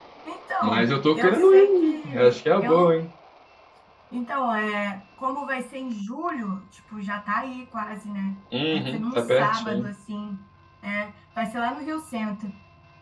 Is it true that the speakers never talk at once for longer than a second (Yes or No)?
No